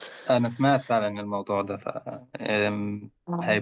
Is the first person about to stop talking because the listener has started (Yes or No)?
No